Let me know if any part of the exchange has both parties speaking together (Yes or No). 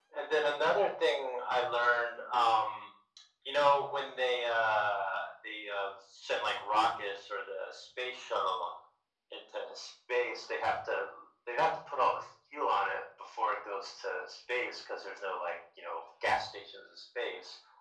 No